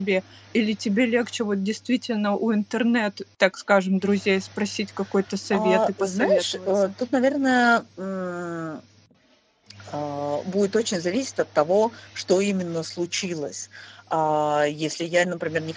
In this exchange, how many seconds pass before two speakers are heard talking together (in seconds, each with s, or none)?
5.5 s